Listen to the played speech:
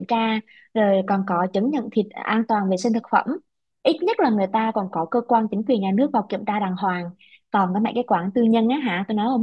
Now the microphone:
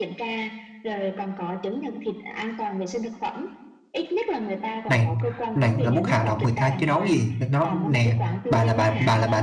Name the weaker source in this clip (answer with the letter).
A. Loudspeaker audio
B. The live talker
A